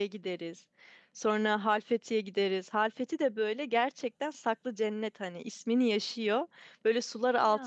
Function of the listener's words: listening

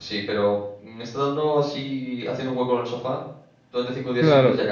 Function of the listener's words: taking over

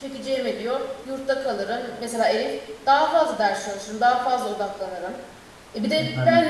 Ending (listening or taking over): listening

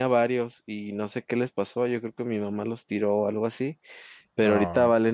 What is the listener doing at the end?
listening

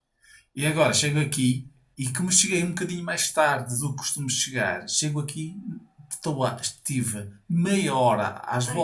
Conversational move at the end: listening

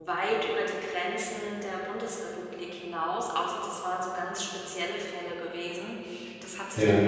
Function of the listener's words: listening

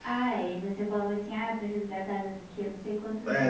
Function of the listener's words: taking over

